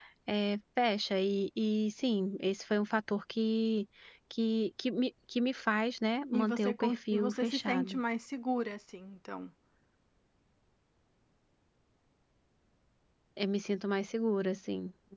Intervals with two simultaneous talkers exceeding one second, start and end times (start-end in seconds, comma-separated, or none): 6.3-8.0